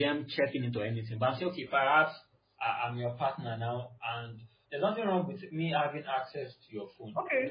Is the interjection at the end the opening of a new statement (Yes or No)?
Yes